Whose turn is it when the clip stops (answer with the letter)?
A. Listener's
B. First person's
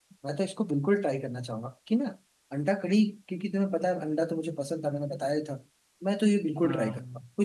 B